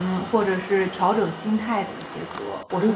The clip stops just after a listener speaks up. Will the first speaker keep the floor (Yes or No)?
No